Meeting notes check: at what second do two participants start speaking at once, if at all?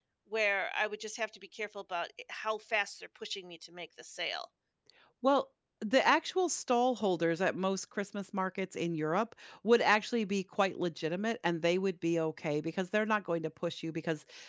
none

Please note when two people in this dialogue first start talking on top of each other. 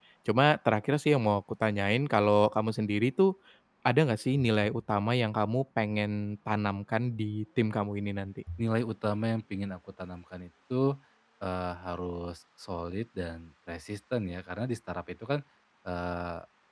none

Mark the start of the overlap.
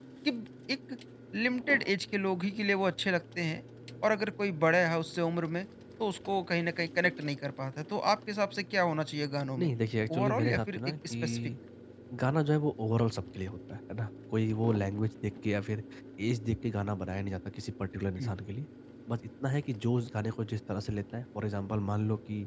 10.1 s

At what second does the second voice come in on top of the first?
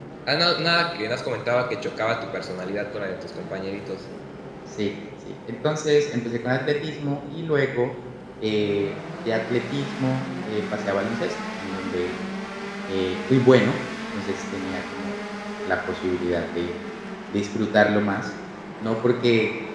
none

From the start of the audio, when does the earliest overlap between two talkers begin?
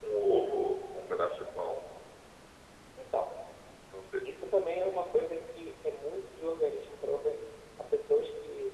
none

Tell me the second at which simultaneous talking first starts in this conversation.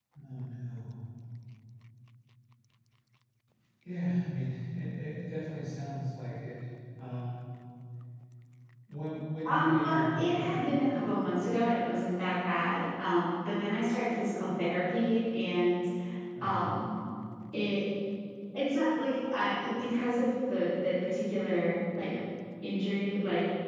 9.4 s

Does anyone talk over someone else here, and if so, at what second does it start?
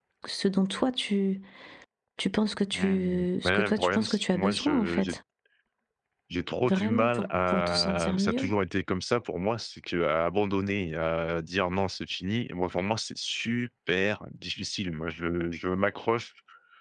2.7 s

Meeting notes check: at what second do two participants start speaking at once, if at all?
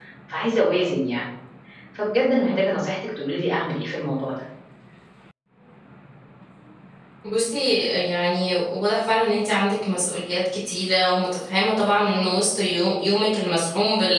none

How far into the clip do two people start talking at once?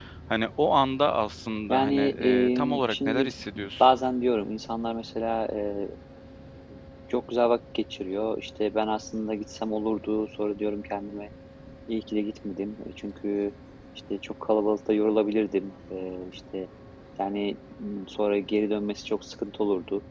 1.7 s

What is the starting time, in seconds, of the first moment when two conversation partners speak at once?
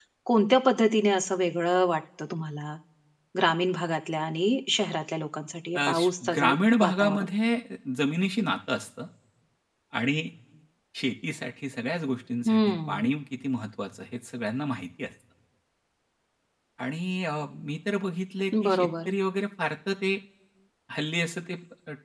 5.8 s

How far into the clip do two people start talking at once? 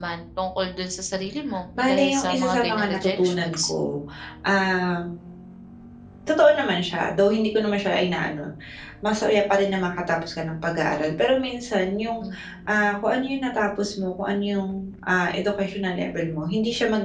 1.8 s

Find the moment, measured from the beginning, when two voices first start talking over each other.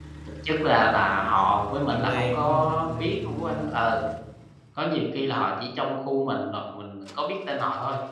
1.9 s

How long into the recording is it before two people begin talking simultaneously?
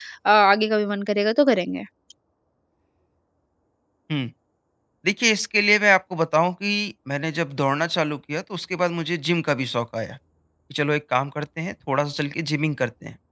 none

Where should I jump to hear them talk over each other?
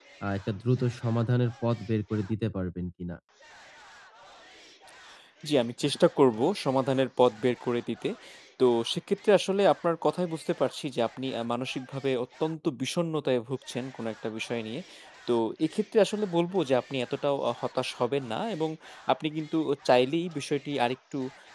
none

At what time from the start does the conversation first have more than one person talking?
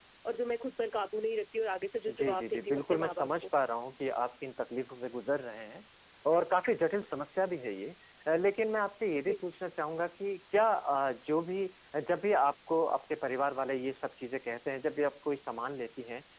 2.1 s

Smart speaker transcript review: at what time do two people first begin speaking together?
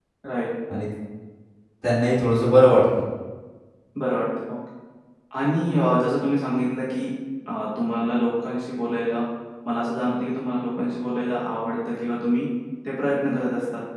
none

